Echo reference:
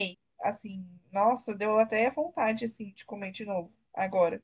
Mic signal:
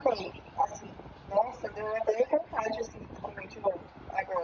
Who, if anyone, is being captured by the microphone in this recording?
echo only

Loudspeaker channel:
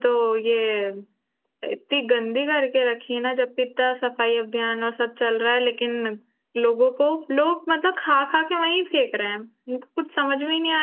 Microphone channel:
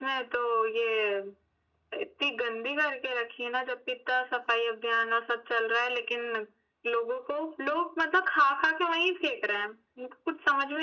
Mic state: echo only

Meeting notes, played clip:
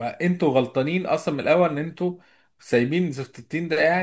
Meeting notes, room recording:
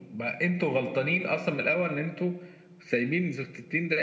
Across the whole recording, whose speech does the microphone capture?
echo only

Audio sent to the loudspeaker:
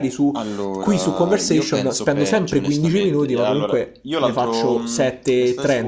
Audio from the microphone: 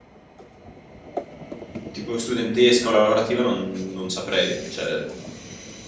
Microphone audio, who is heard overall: user only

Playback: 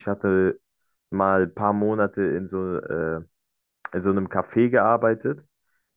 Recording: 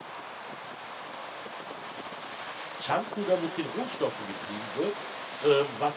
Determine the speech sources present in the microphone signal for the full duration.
user only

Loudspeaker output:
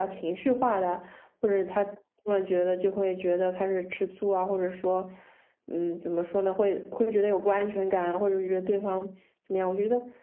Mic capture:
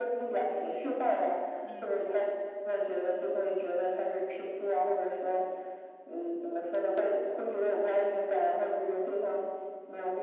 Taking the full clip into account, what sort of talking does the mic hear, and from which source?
both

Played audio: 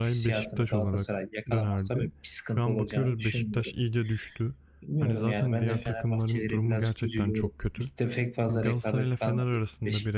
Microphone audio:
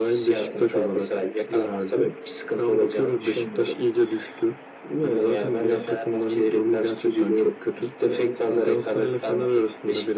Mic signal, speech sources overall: echo only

